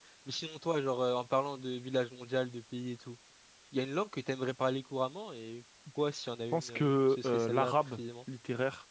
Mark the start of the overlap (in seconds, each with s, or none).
6.5 s